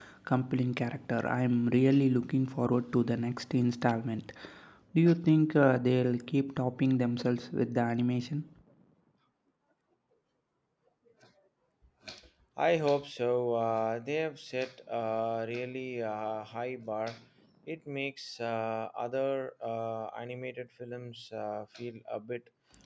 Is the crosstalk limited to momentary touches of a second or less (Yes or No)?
Yes